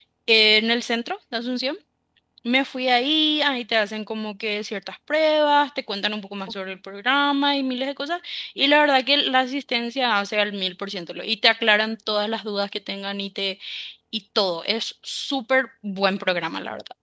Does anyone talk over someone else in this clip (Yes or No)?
No